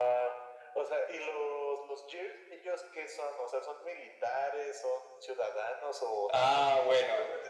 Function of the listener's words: taking over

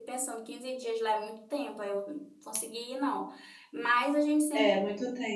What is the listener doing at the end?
taking over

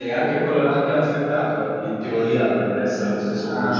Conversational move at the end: listening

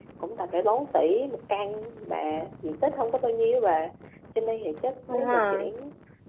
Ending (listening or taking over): listening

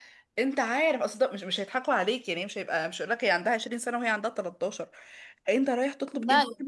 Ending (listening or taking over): listening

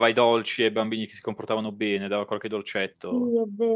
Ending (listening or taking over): taking over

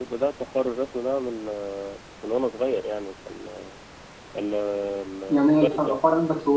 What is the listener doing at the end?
taking over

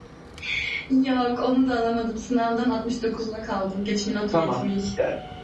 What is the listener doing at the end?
taking over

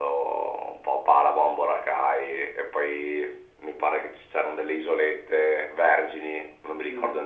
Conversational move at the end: listening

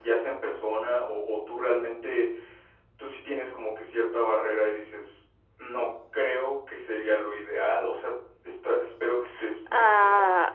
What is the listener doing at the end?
taking over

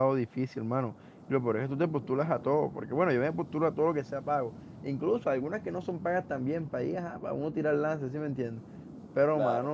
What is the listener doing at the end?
listening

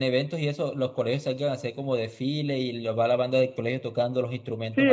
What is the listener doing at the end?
taking over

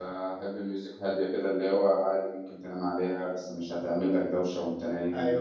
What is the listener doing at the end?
taking over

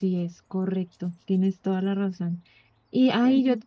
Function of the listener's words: listening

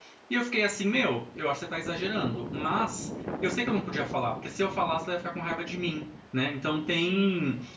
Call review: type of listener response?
listening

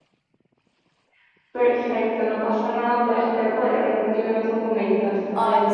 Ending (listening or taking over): taking over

